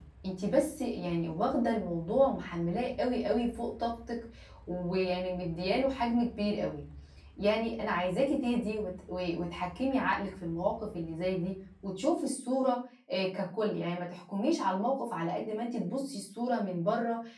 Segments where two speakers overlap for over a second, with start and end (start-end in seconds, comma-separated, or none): none